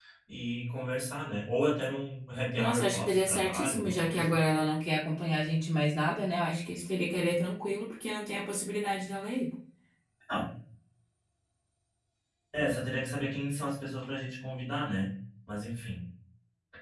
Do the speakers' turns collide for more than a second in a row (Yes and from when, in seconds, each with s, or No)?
Yes, from 2.5 s